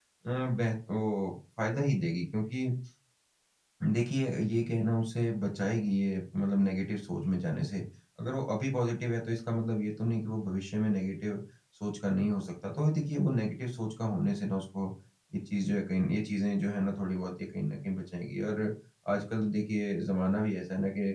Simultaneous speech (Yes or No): No